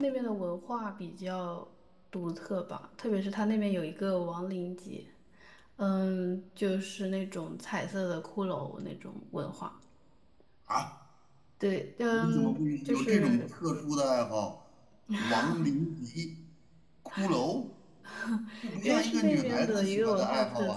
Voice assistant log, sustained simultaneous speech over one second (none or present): present